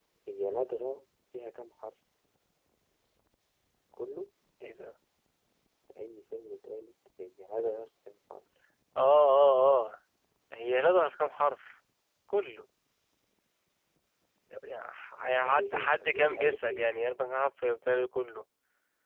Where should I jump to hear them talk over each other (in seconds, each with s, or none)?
15.5 s